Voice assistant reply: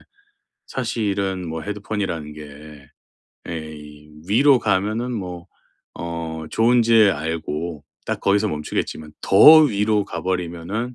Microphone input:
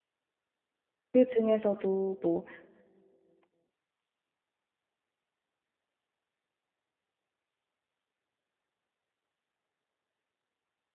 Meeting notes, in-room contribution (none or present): present